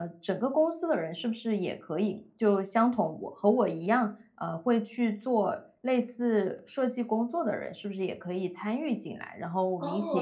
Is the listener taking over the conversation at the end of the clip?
Yes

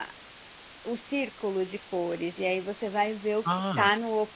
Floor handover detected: No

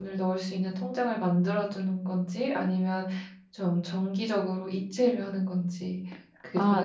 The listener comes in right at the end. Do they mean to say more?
Yes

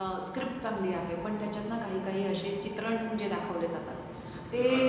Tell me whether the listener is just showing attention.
Yes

